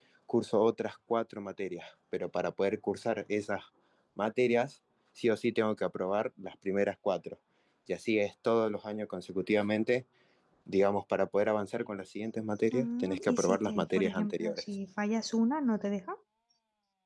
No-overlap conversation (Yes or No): No